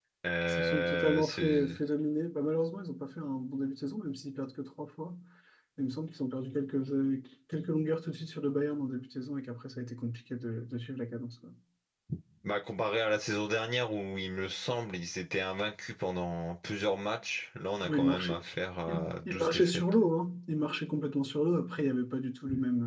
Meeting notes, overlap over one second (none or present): present